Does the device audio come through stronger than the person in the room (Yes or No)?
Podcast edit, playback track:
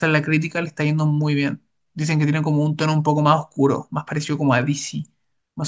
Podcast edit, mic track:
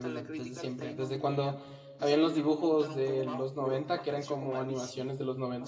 No